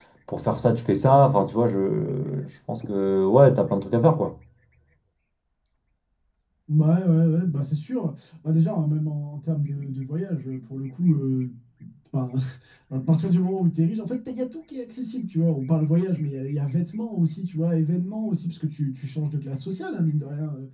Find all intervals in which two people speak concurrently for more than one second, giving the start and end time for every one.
none

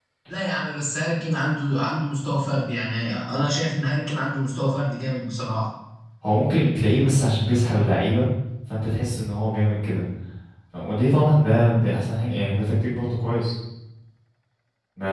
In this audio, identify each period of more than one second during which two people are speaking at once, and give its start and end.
none

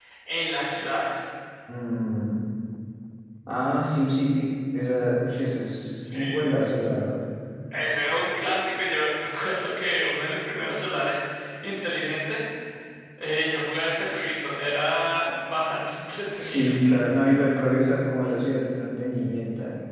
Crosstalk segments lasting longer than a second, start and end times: none

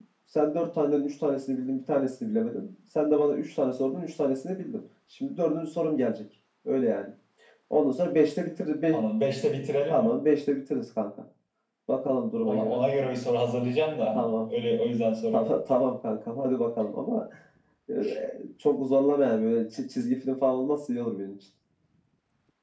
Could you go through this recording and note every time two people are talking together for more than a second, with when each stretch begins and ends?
none

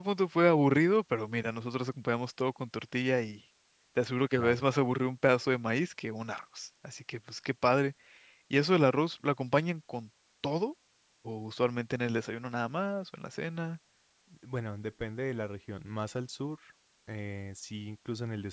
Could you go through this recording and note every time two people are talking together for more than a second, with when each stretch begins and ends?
none

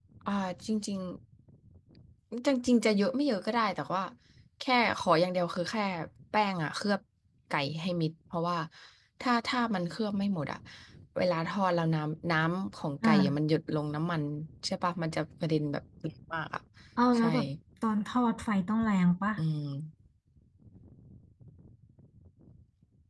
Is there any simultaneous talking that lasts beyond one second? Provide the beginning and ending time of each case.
none

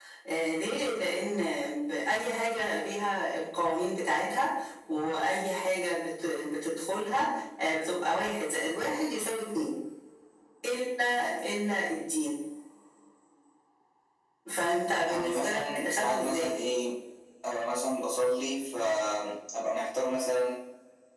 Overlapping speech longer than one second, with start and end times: 15.0-16.5

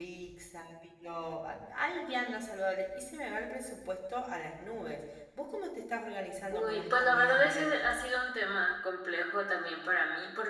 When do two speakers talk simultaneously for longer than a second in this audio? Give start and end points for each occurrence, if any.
6.5-8.0

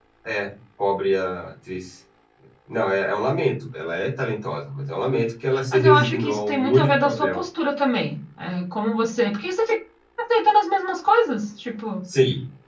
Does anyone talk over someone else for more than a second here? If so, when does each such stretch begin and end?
5.7-7.4

